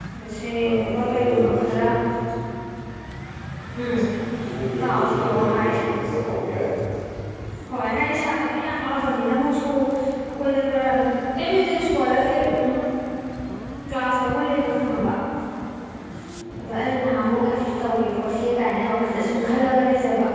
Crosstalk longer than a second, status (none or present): present